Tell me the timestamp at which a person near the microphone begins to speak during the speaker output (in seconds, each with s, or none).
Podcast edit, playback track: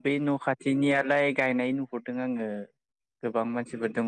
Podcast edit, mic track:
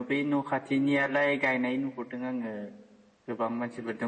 none